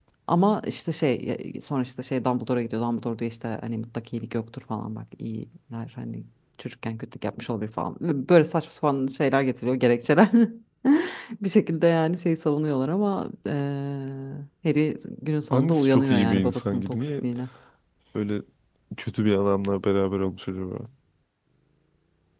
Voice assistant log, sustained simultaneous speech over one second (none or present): present